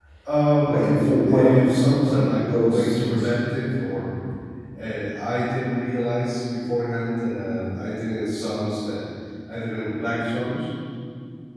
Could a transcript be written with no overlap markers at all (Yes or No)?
No